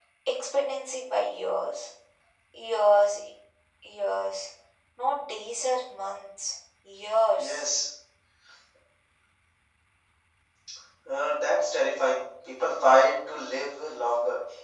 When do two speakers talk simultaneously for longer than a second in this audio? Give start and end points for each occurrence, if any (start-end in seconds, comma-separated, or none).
none